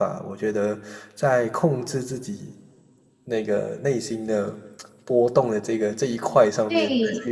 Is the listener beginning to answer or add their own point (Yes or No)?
Yes